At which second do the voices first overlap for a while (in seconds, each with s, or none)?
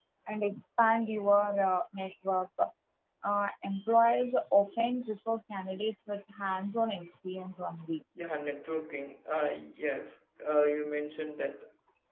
none